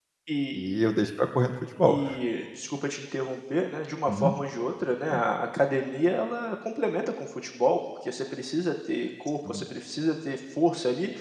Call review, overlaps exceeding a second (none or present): none